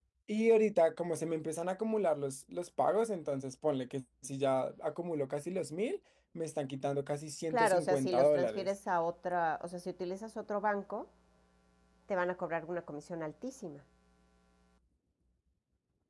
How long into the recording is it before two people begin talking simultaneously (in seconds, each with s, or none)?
7.5 s